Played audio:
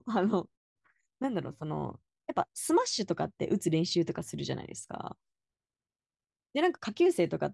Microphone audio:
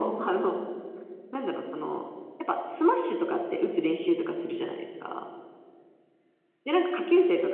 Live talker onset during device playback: none

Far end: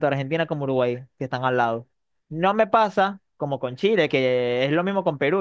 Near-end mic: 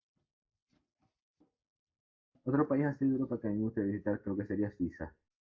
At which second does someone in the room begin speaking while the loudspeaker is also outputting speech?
2.4 s

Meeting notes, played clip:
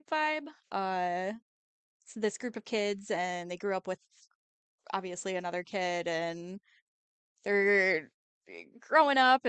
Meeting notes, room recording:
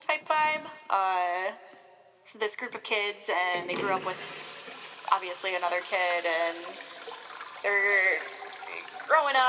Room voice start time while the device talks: none

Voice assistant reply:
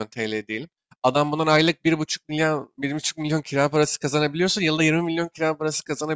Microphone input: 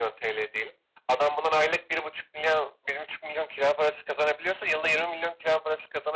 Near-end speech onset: none

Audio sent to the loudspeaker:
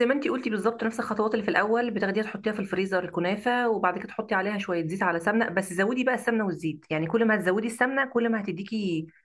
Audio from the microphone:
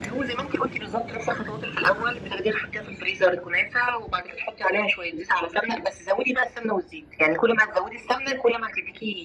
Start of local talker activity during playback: none

